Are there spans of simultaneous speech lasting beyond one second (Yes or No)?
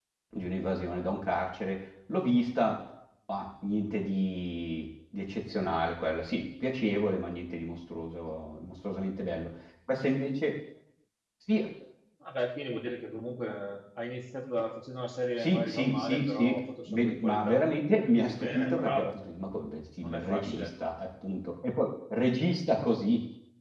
Yes